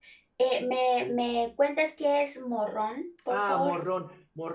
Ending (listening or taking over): taking over